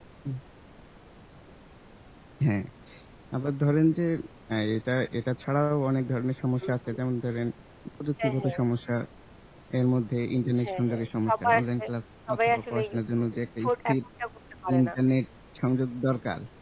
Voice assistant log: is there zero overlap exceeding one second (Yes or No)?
No